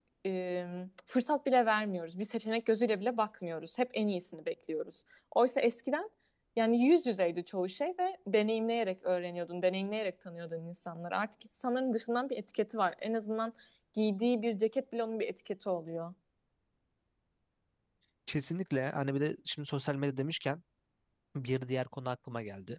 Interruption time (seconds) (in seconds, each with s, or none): none